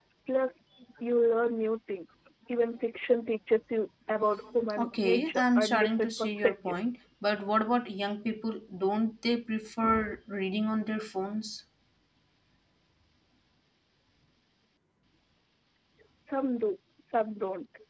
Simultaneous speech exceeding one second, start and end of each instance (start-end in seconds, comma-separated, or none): 4.8-7.0